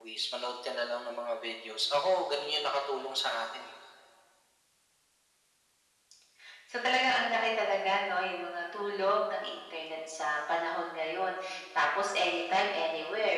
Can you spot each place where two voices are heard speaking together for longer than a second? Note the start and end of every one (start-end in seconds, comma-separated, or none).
none